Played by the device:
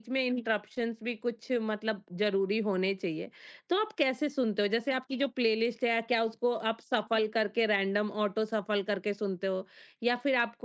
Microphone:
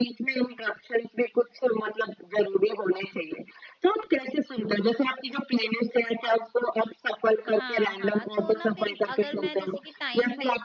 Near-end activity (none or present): present